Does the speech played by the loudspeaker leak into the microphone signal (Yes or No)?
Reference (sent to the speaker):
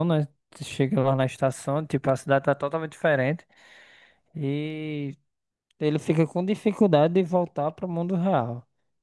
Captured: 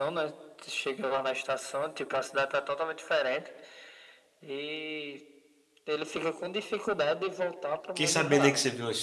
Yes